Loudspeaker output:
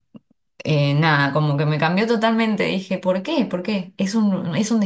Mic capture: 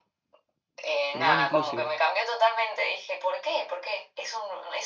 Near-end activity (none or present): present